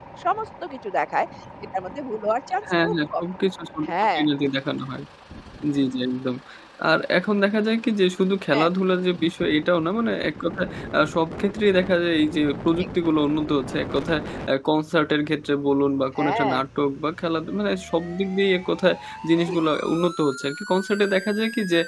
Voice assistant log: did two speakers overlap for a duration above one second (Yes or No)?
No